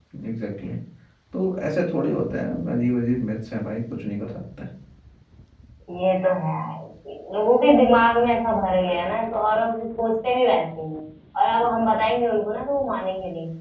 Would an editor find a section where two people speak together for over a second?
No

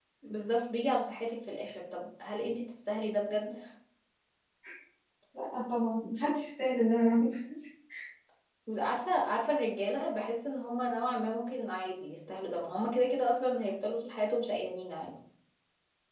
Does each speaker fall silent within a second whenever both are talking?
Yes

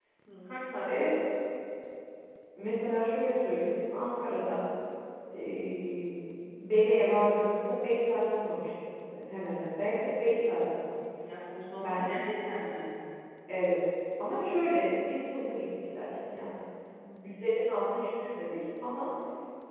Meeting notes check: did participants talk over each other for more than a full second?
No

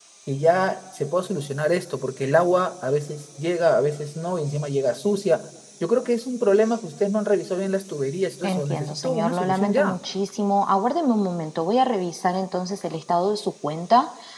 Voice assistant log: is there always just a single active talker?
No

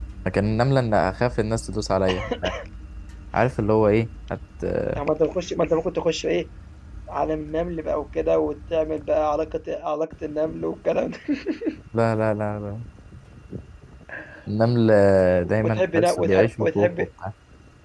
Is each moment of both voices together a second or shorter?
No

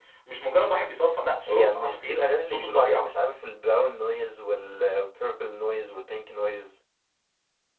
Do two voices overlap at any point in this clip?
Yes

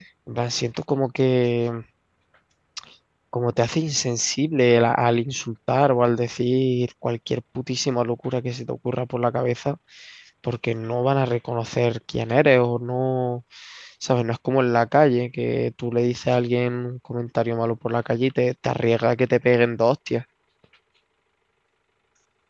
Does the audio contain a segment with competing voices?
No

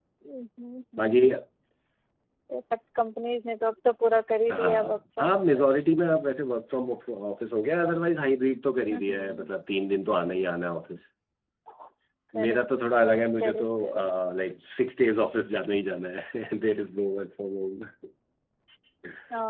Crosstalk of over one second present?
Yes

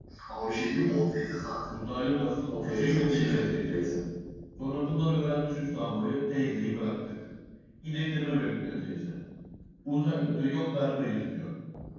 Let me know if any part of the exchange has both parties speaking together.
Yes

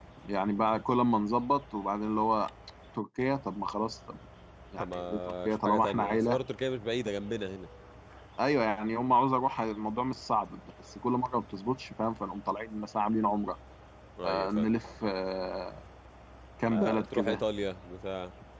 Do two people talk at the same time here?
Yes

